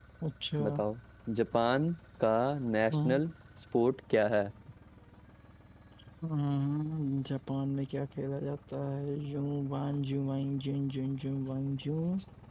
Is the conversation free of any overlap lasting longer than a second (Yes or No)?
Yes